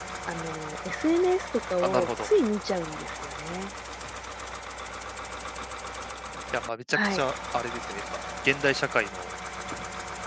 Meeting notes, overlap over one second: none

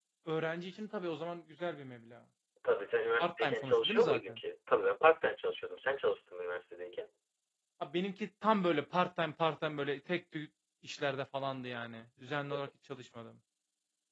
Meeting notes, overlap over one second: present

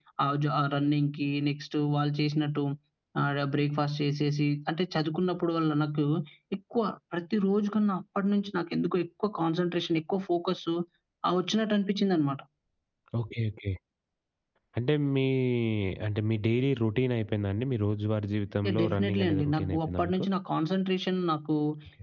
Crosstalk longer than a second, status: present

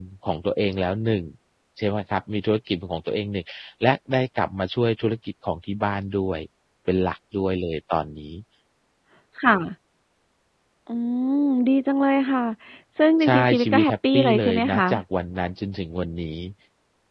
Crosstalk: present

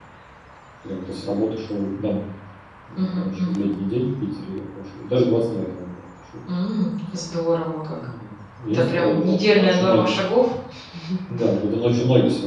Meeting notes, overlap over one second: present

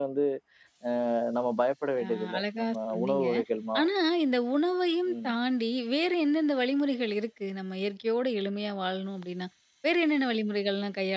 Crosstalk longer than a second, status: present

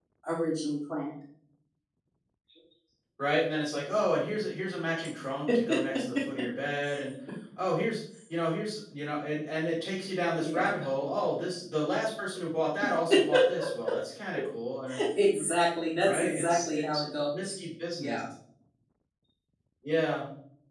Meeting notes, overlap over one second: present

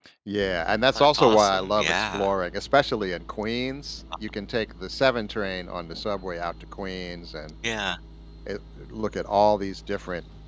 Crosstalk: present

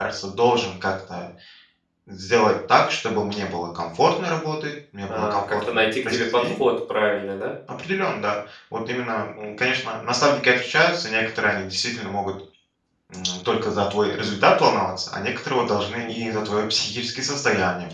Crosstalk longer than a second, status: present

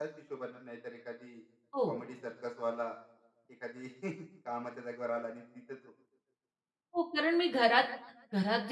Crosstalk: none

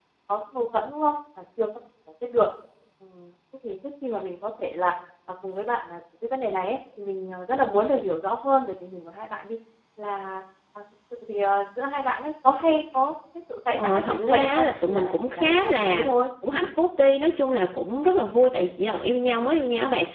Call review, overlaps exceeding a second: present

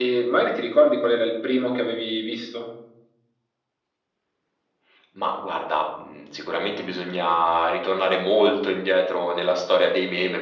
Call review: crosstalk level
none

